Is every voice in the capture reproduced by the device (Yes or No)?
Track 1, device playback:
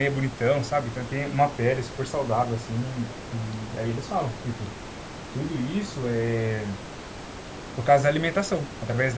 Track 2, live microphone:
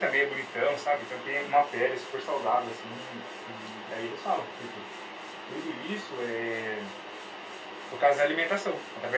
Yes